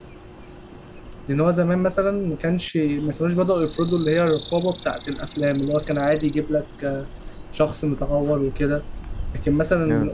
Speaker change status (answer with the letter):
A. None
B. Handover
A